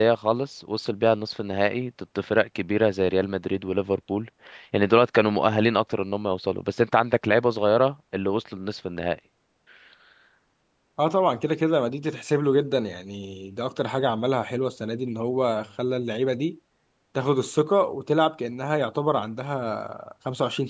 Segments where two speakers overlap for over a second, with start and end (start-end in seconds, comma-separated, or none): none